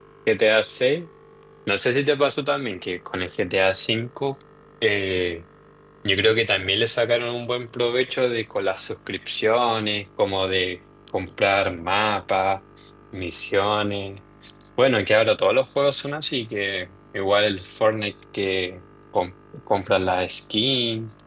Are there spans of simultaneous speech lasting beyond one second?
No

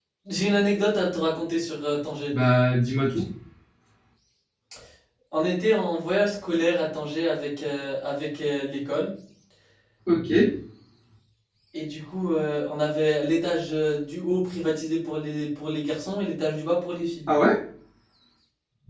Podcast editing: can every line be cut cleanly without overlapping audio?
Yes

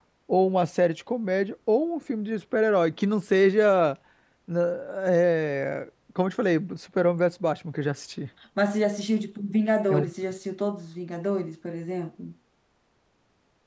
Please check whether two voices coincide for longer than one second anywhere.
No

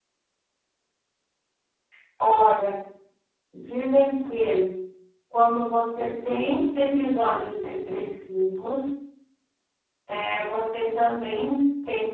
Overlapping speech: No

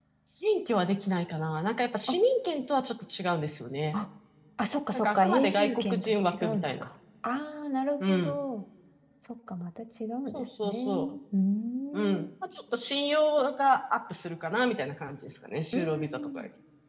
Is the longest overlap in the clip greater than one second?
Yes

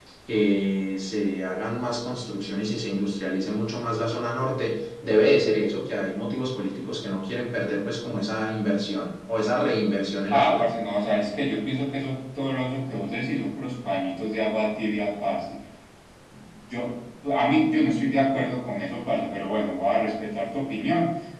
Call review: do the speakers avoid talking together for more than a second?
Yes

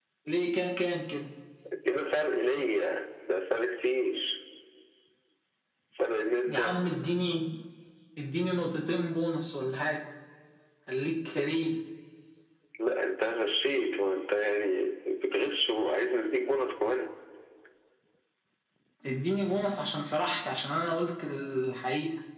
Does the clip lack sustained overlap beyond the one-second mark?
Yes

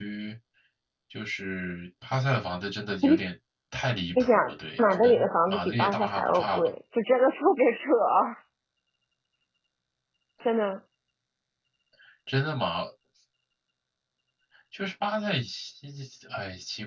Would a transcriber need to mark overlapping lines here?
Yes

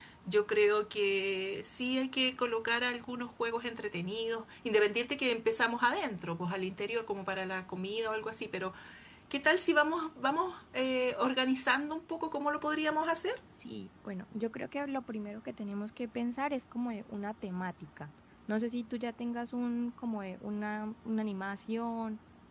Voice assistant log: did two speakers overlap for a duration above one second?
No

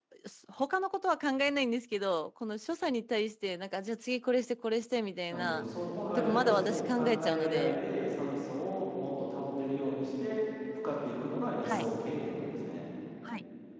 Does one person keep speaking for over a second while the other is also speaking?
Yes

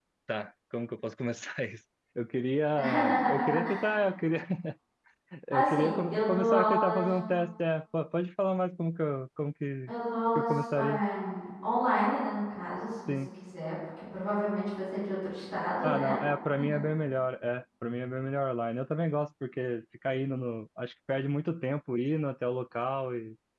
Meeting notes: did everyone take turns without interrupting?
No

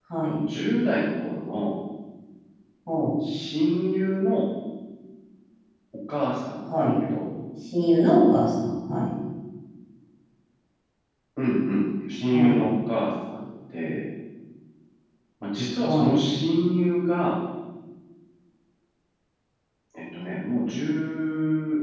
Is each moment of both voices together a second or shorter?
Yes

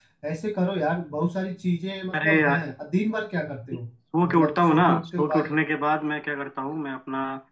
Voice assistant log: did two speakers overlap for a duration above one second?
Yes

